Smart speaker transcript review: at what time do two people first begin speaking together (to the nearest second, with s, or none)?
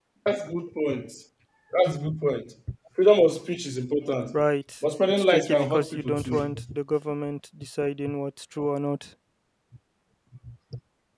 5 s